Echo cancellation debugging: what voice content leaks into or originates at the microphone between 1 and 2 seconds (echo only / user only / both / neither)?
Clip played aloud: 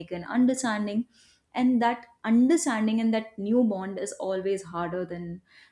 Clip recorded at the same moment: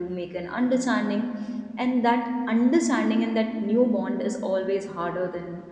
echo only